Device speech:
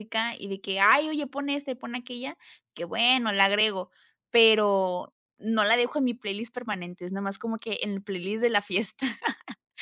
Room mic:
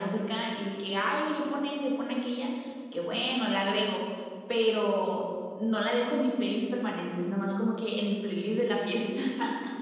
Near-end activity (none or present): none